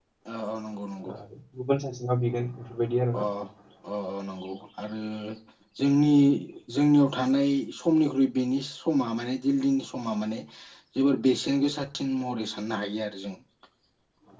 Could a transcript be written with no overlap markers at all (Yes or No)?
Yes